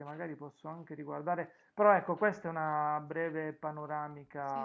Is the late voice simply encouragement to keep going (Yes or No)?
No